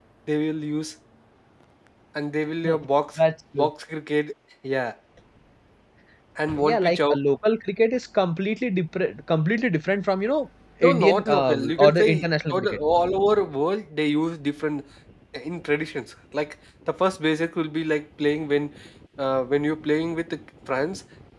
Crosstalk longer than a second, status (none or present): present